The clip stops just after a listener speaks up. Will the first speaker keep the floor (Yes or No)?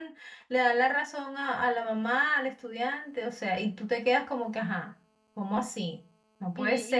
No